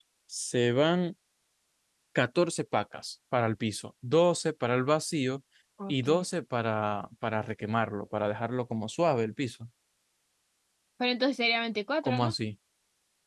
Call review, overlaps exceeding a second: none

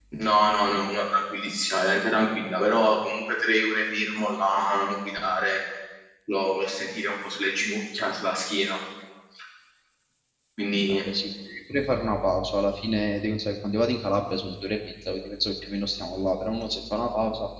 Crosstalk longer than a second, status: none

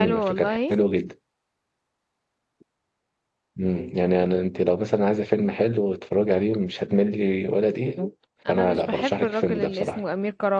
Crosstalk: present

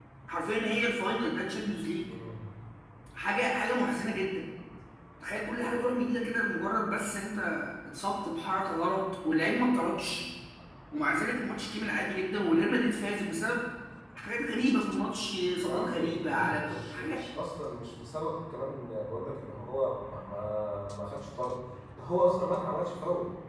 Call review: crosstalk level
present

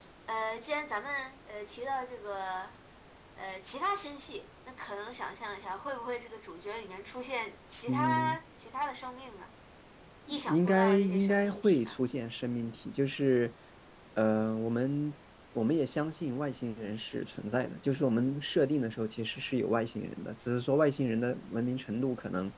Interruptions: present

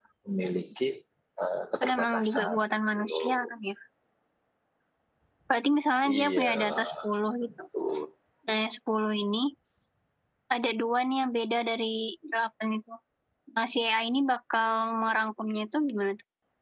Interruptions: present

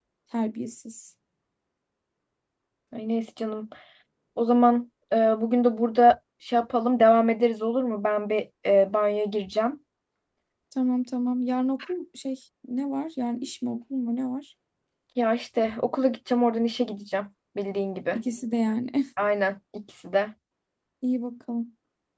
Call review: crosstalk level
none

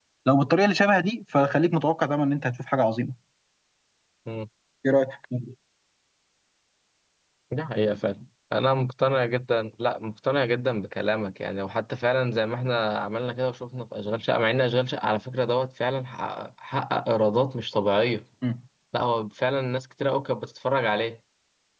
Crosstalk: none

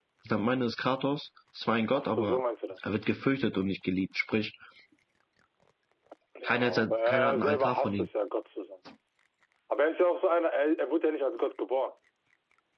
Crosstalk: present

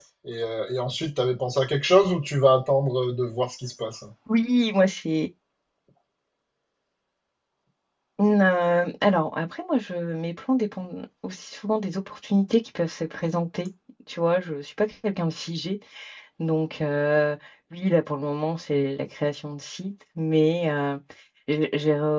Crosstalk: none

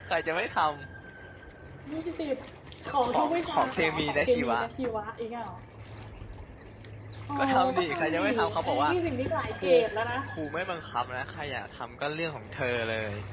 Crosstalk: present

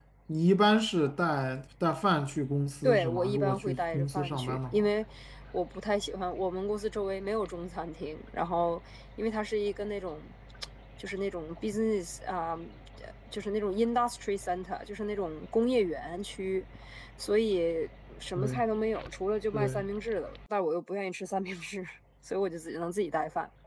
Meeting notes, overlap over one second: present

